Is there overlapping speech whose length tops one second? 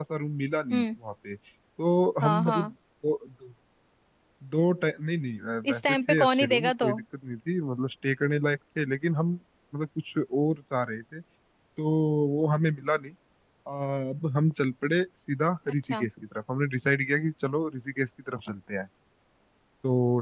Yes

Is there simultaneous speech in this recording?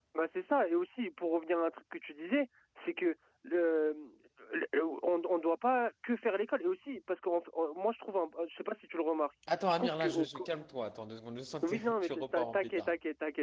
Yes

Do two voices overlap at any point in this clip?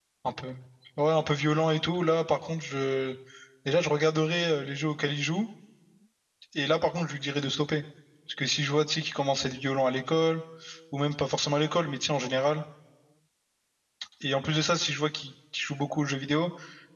No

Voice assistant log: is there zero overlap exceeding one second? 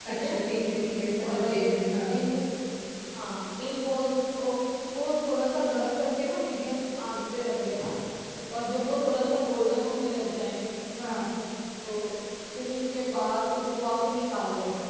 Yes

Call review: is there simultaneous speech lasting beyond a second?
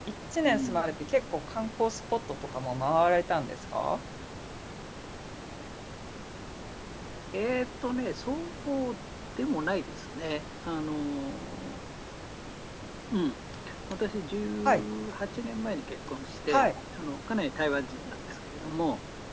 No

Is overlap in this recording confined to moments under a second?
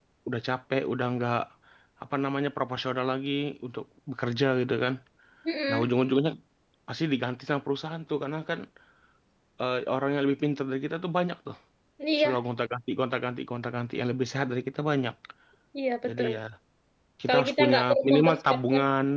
No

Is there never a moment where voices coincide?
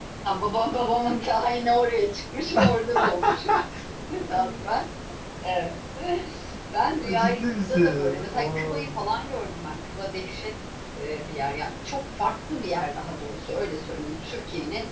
No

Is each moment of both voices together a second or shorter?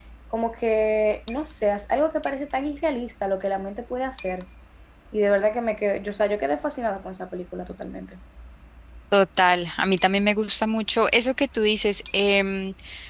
Yes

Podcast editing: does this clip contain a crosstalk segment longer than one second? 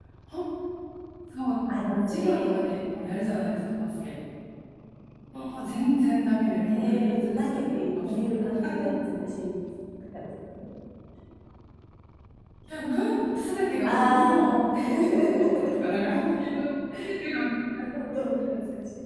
Yes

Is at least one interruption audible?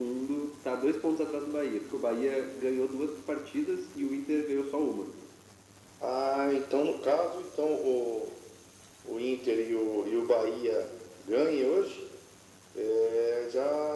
No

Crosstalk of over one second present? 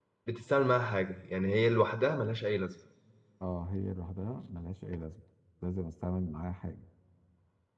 No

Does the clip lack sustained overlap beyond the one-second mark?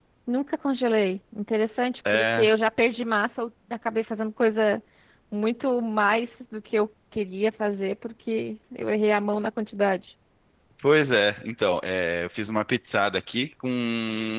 Yes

